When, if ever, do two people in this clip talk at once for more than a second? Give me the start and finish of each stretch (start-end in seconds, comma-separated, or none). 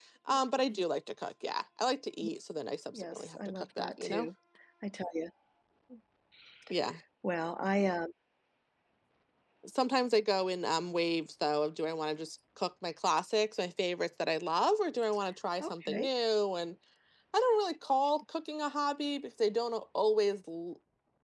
2.9-4.3